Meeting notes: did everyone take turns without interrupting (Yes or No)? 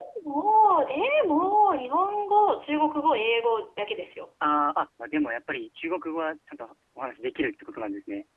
Yes